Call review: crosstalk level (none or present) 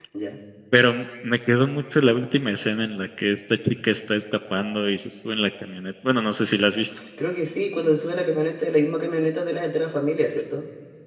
none